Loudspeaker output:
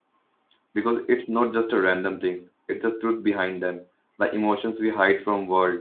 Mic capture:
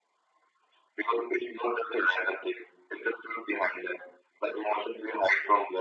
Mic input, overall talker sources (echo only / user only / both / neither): echo only